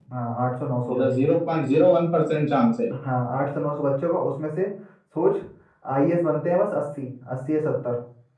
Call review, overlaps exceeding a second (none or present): none